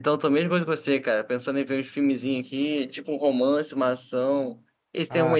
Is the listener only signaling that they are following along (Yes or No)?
No